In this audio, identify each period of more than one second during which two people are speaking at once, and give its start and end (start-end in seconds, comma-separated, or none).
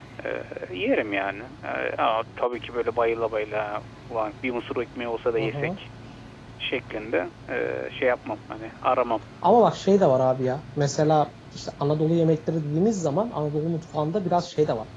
none